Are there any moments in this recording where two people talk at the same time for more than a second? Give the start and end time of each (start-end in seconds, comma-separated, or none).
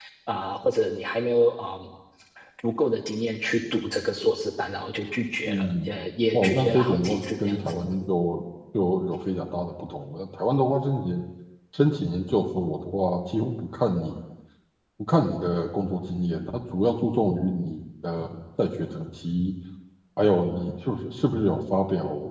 6.3-7.8